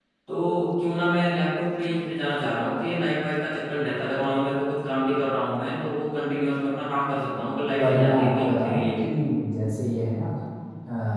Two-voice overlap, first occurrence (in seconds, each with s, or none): 7.8 s